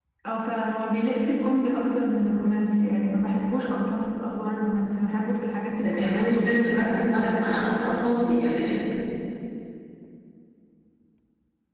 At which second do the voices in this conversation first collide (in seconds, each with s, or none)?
5.8 s